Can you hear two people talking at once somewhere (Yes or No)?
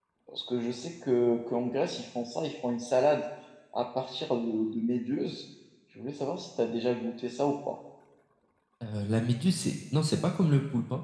No